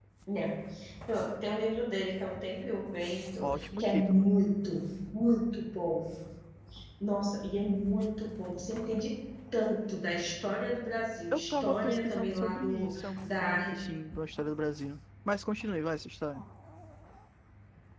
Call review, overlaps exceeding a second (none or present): present